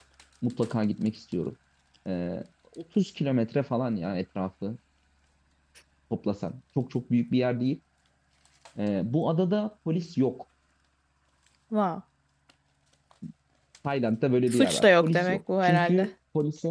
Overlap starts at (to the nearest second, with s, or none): 15 s